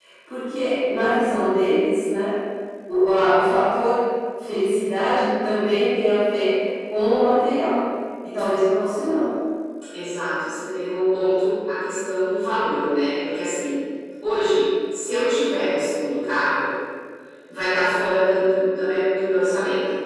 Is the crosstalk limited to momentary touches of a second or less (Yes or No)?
Yes